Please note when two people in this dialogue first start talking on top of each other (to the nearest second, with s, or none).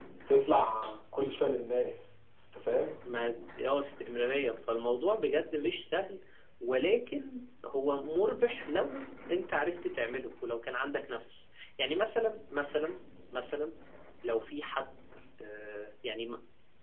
none